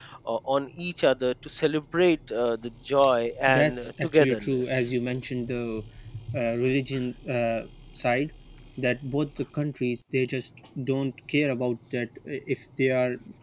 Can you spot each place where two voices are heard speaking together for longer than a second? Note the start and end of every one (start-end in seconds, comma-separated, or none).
3.5-4.9